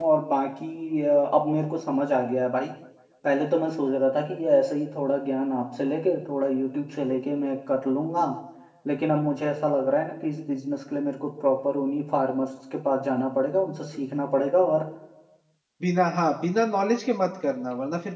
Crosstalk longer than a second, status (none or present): none